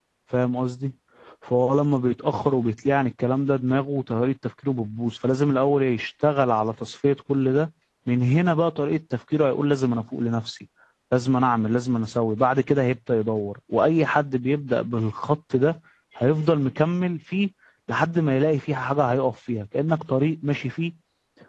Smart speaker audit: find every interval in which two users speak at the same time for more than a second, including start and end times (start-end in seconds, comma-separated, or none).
none